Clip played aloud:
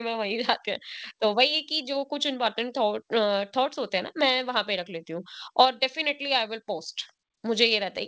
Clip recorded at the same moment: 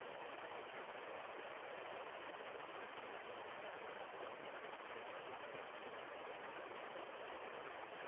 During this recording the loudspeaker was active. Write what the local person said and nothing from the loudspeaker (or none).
none